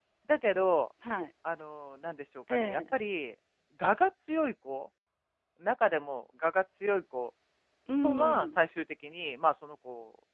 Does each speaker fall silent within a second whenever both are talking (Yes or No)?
Yes